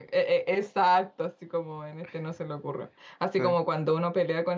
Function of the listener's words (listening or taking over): listening